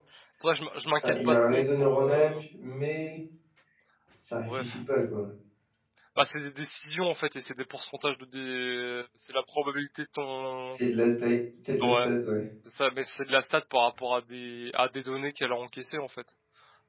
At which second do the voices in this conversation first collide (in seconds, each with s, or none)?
1.0 s